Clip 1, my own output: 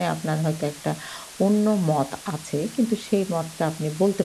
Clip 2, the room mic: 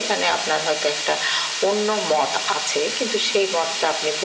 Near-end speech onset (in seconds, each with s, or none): none